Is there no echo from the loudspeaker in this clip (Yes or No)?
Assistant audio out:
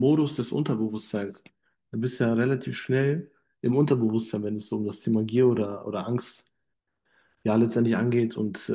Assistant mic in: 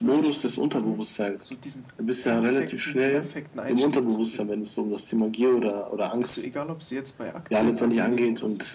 No